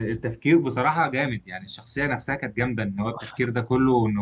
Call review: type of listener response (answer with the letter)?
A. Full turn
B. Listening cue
B